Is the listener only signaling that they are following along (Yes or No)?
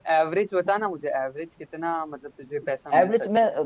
No